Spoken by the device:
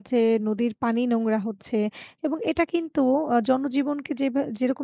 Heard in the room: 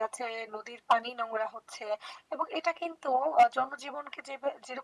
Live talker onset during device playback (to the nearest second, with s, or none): none